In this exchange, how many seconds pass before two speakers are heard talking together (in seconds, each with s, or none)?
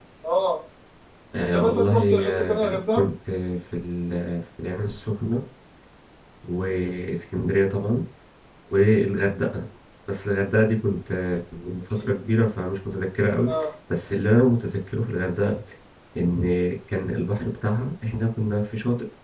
1.5 s